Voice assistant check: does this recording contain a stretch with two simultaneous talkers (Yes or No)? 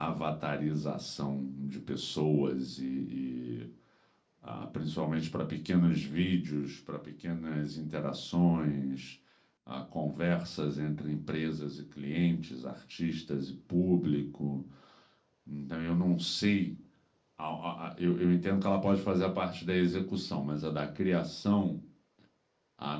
No